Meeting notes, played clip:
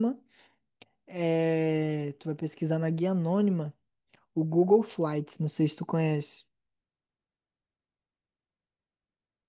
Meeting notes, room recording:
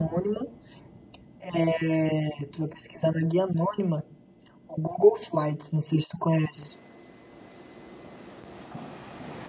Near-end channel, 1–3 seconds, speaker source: echo only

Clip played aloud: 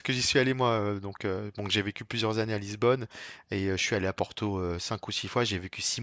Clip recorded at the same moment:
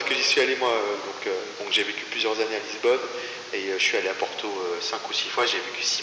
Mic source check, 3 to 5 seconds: echo only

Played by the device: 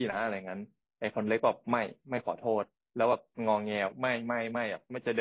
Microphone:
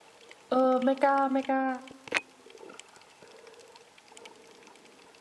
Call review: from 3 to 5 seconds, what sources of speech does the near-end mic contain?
neither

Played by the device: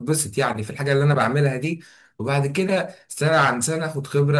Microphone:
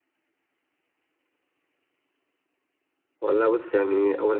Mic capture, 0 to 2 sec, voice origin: neither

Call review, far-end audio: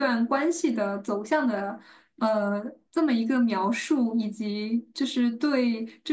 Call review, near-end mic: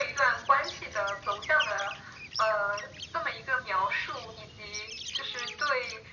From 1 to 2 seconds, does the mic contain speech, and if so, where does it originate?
echo only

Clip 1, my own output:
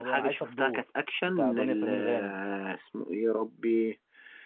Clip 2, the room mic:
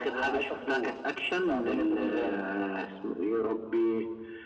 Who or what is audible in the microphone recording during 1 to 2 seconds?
echo only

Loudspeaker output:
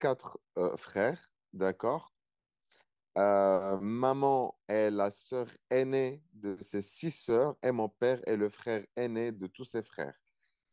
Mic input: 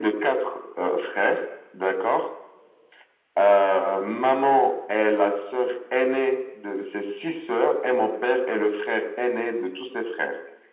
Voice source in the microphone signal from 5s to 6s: echo only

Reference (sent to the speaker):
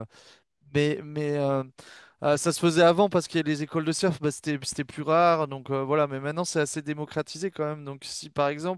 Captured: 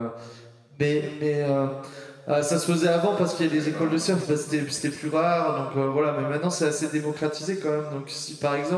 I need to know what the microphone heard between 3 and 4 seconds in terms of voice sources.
both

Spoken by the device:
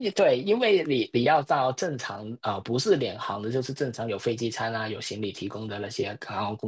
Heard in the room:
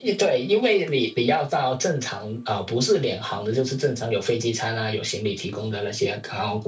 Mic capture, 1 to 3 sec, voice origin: echo only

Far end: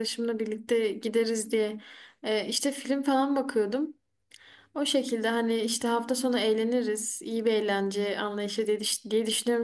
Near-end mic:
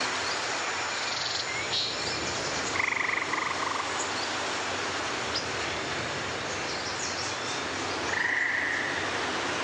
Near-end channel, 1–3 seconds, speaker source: neither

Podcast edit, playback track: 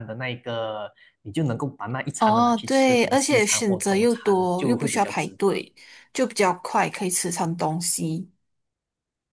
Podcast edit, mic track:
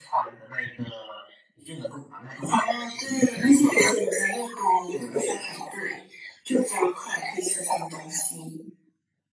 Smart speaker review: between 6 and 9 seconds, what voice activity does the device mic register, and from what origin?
echo only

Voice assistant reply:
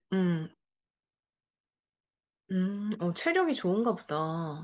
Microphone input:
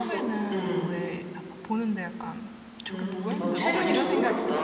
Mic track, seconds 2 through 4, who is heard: both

